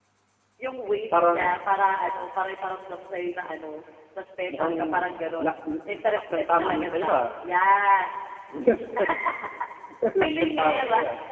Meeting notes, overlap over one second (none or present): present